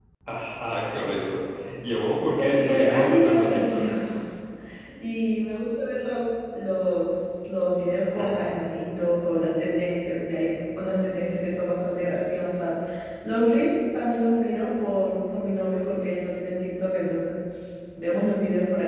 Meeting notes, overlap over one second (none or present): present